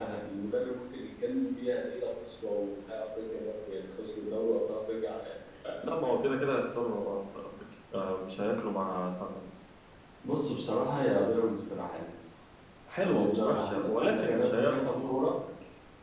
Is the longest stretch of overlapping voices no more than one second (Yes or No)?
No